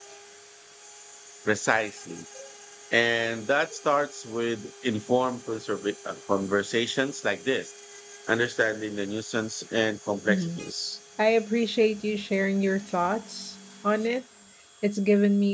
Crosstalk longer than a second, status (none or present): none